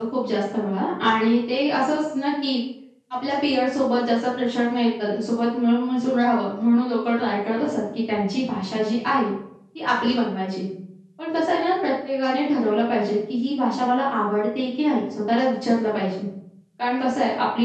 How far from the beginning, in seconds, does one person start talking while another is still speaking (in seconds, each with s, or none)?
none